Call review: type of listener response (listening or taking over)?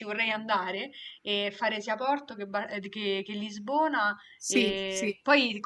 listening